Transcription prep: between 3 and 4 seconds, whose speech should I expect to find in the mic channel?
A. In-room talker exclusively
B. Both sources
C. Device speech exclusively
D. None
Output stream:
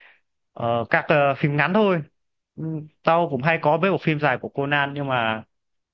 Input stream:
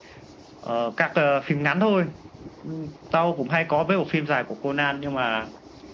C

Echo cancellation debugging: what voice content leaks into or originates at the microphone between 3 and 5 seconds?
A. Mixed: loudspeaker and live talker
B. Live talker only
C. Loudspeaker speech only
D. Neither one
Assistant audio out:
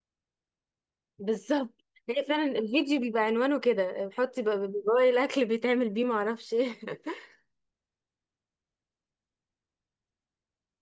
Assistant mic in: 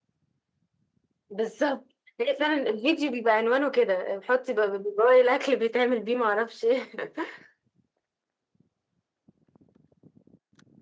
C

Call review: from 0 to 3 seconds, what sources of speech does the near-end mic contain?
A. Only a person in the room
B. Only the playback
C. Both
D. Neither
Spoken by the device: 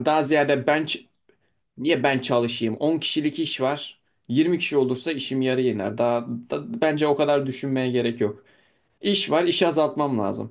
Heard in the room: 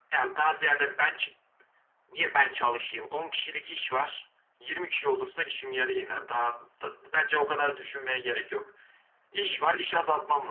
B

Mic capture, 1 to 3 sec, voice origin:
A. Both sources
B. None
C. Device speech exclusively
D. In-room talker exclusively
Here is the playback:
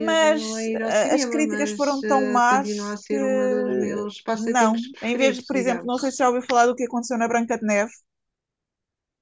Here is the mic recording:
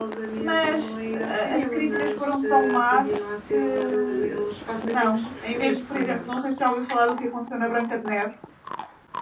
C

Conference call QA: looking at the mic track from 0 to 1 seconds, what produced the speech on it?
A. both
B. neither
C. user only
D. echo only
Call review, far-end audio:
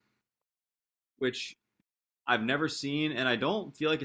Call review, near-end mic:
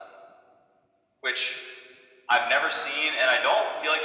B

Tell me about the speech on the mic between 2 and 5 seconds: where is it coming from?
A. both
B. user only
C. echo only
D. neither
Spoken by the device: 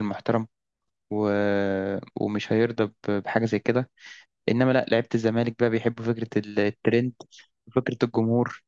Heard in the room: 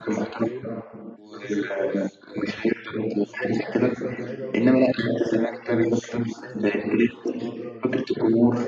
A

